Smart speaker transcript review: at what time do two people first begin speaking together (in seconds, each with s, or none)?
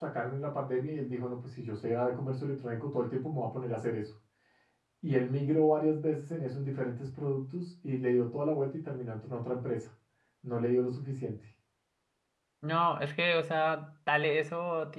none